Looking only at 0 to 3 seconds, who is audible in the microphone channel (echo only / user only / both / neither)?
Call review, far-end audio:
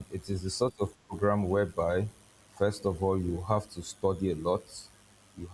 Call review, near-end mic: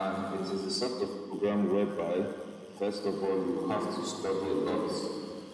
echo only